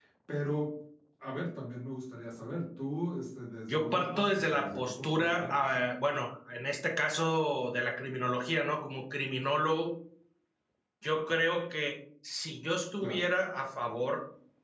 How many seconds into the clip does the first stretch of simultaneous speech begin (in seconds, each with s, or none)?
3.7 s